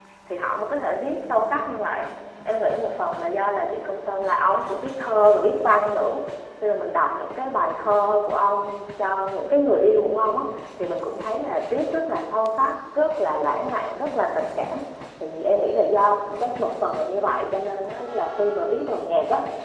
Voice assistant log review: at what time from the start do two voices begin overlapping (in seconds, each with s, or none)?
none